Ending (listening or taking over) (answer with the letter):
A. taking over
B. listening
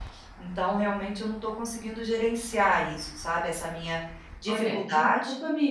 A